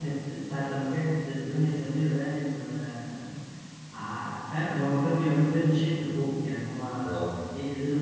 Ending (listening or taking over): listening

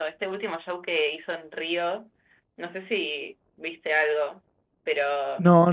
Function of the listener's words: taking over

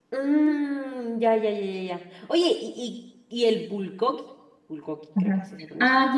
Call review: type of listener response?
taking over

